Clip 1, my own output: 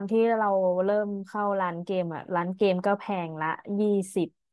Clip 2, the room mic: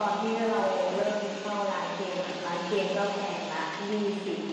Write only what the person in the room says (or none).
none